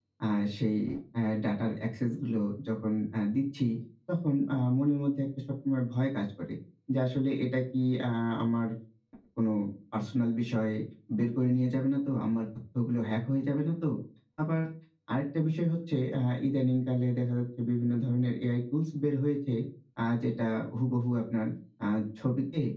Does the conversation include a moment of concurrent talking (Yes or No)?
No